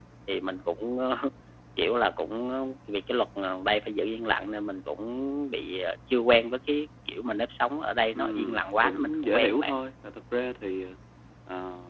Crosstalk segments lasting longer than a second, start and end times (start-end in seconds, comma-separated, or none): 8.2-9.7